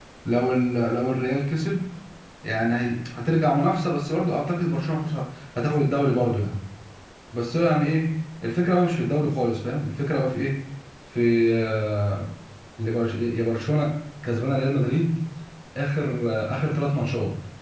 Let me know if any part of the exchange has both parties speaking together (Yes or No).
No